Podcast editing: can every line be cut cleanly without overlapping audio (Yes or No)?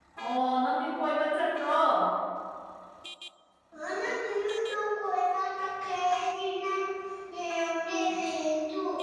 Yes